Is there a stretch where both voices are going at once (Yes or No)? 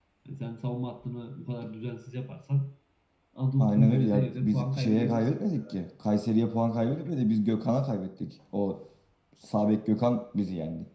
Yes